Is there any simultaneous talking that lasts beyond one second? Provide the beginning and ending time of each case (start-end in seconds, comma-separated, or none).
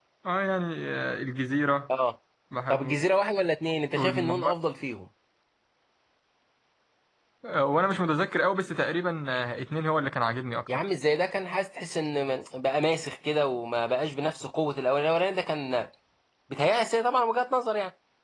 none